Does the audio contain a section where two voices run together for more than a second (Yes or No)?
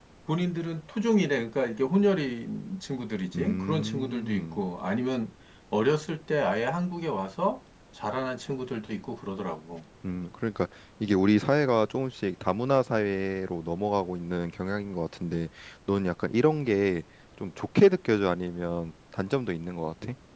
Yes